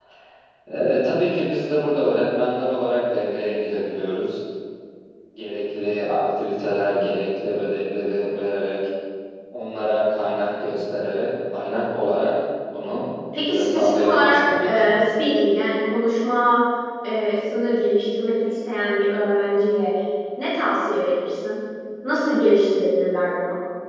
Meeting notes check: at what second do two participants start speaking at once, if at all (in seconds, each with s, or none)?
13.3 s